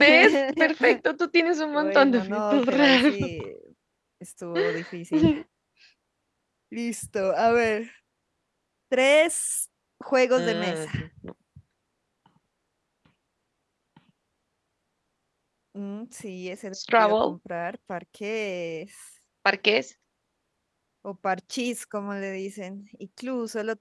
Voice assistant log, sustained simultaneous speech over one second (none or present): present